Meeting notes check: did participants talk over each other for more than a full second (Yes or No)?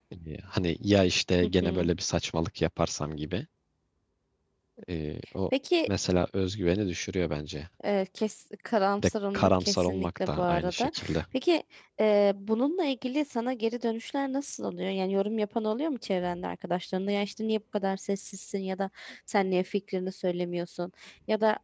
Yes